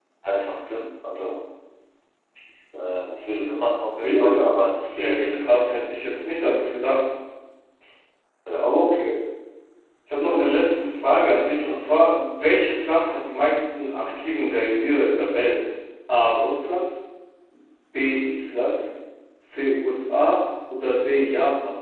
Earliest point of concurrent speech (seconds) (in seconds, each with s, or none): 4.0 s